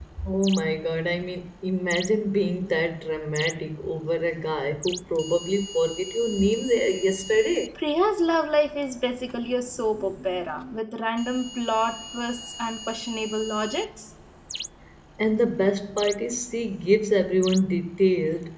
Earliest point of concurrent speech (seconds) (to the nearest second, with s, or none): none